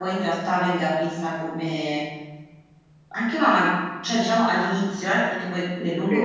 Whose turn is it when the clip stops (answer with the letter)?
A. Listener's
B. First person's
B